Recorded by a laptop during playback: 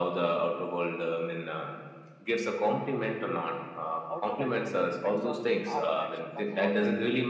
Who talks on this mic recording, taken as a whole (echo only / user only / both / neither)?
both